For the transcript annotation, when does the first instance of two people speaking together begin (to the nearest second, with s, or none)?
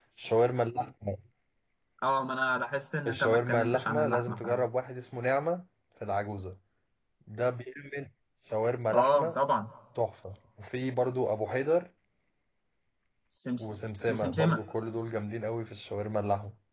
3 s